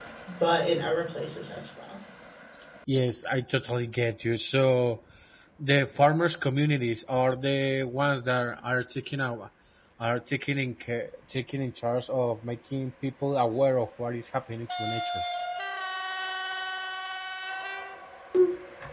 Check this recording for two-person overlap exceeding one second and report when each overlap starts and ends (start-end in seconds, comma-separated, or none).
none